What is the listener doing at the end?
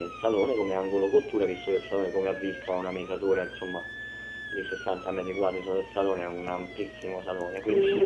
taking over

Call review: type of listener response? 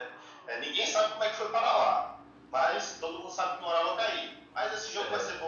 listening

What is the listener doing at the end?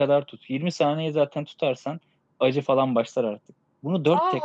taking over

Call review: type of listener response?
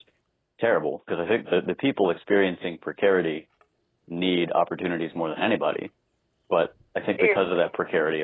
listening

